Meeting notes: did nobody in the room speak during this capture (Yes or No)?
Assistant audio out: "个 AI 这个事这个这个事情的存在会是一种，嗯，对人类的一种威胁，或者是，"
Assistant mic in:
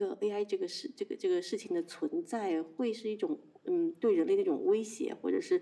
Yes